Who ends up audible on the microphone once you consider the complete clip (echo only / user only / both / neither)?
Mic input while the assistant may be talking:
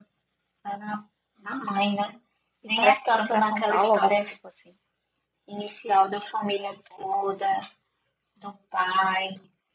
both